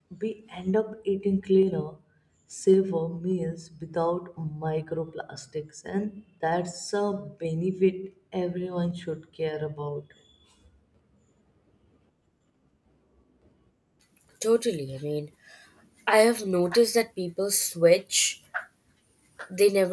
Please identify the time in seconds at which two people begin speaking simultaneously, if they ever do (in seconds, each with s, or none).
none